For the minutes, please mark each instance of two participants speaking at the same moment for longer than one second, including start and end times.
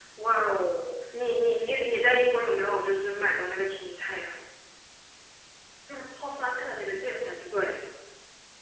none

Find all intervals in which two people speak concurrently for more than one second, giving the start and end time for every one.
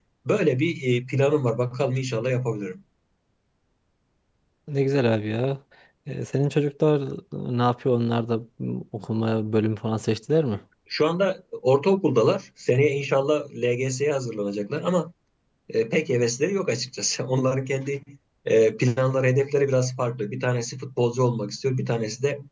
none

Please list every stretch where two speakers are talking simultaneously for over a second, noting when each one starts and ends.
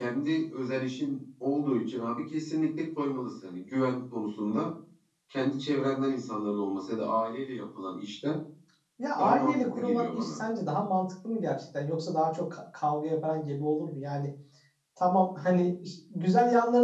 9.2-10.4

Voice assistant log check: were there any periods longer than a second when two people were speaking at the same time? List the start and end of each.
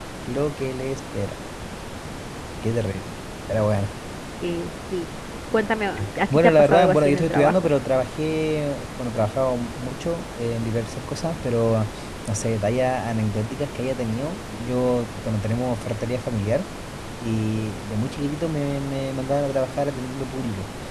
6.3-7.7

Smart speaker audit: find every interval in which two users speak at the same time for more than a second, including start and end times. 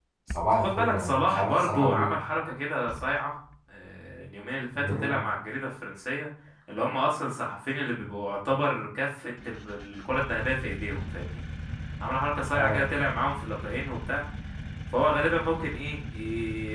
0.5-2.1

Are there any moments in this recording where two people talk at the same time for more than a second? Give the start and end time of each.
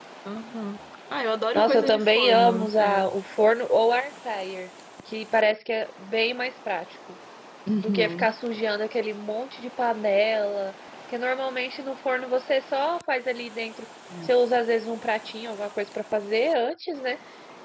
1.6-3.1

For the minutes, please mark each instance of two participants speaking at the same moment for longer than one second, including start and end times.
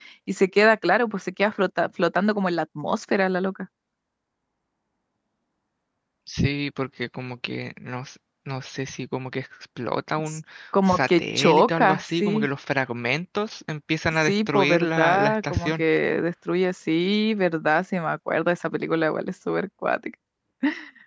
10.9-12.5, 14.2-15.8

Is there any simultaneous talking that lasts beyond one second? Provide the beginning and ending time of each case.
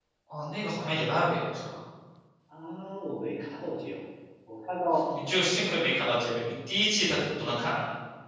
none

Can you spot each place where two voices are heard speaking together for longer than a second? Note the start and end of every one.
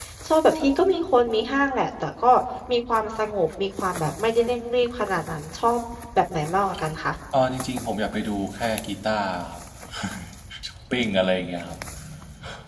none

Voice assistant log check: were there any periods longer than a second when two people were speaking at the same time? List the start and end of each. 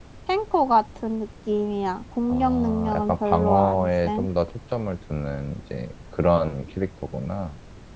2.3-4.3

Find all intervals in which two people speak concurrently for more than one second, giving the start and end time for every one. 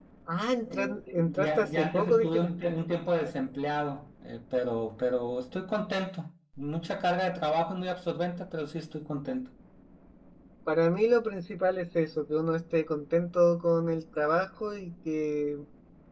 0.7-2.7

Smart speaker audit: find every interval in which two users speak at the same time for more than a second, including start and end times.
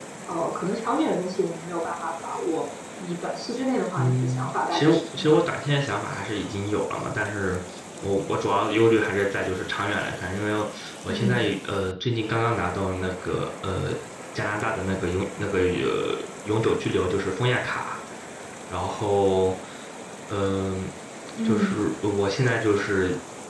4.0-5.5

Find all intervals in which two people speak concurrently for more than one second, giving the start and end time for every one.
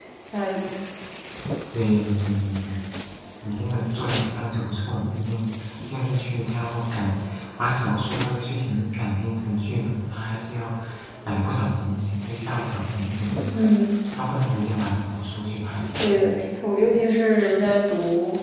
none

